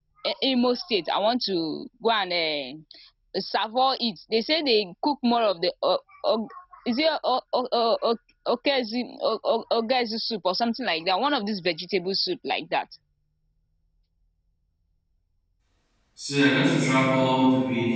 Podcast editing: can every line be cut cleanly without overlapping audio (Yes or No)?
Yes